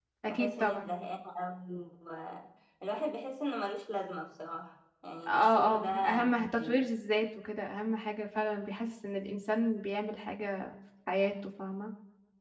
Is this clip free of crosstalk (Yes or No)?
No